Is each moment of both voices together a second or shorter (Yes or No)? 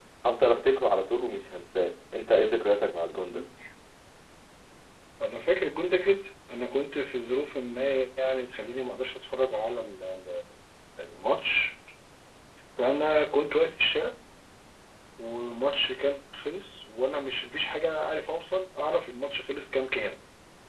Yes